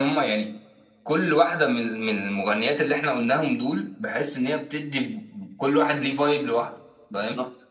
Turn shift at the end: Yes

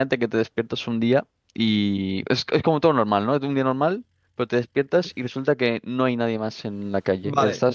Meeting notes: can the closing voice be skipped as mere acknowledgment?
No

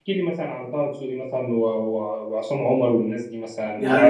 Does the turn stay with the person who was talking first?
Yes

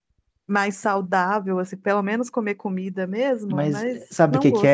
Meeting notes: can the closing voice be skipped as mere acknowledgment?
No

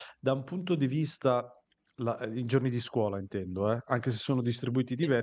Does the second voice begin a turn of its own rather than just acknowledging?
No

